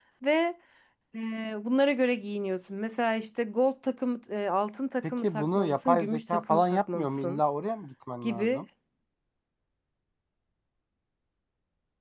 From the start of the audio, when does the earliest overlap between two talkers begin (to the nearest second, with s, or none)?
5 s